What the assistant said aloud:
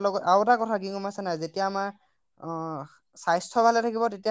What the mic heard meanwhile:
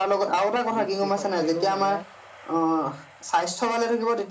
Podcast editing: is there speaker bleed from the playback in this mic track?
Yes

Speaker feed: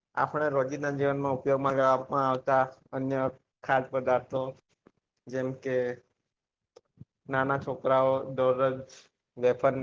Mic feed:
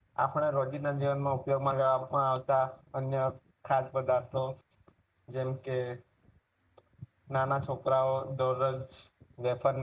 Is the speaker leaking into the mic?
Yes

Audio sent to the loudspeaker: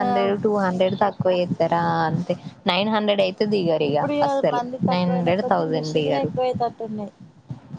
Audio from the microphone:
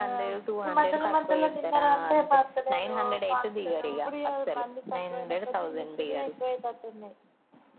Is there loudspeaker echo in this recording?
Yes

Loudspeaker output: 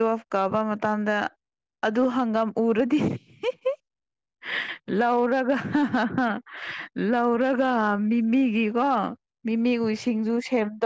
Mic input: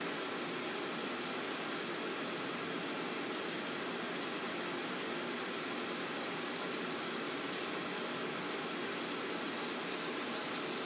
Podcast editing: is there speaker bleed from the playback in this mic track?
No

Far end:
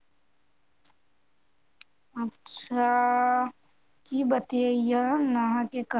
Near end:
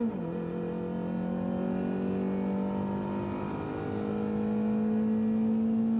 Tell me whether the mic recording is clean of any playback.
Yes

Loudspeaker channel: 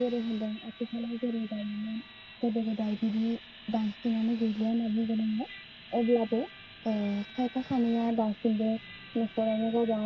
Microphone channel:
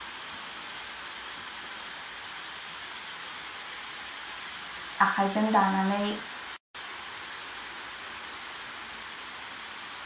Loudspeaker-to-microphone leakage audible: No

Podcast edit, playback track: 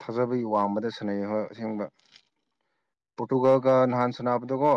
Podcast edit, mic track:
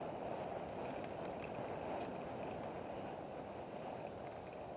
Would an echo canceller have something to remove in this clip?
No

